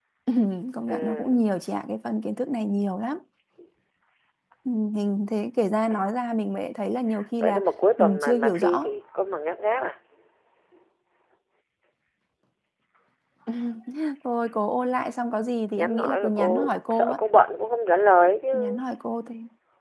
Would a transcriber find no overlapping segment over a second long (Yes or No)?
No